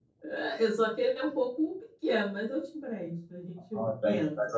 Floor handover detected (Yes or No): Yes